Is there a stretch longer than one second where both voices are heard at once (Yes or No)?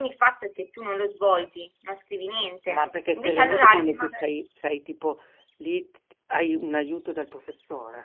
Yes